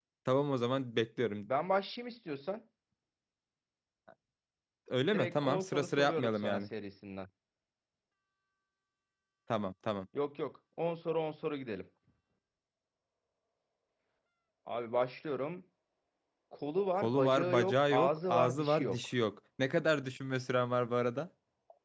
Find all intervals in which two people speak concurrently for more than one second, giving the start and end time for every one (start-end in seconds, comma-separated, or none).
5.1-6.7, 16.9-19.1